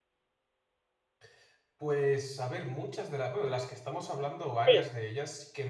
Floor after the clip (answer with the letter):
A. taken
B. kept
B